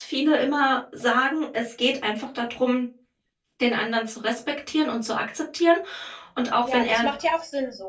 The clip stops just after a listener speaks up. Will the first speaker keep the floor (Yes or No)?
No